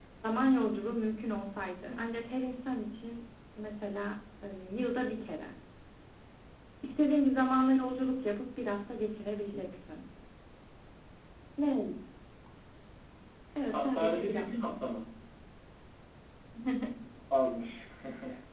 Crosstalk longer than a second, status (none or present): present